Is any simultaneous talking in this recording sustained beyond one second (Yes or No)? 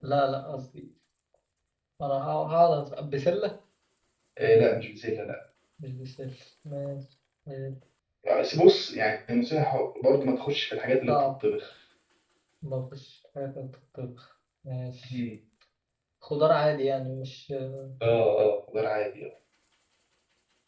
No